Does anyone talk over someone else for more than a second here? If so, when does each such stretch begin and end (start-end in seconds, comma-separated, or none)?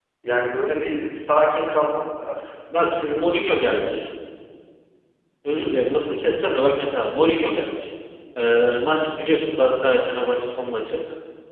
none